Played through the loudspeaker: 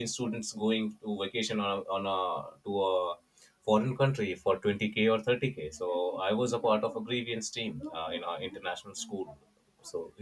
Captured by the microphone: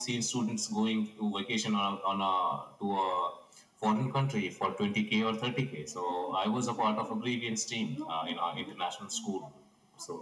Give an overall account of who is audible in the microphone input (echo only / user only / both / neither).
echo only